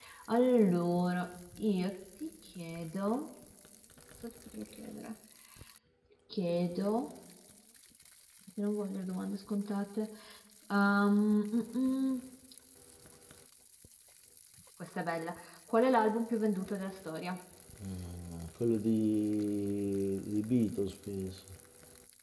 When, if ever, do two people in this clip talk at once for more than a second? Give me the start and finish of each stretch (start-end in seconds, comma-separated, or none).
none